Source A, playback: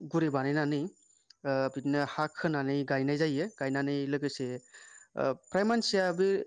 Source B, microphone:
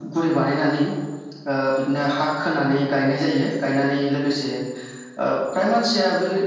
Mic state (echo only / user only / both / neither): echo only